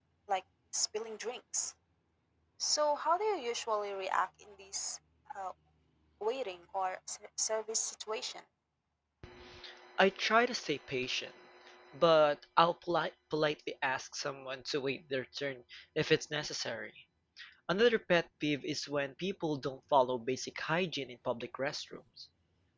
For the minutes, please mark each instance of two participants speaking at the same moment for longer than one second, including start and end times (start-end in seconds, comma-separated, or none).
none